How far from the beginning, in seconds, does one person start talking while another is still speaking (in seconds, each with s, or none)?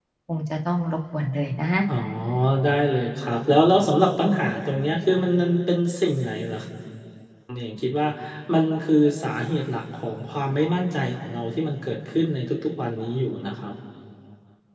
none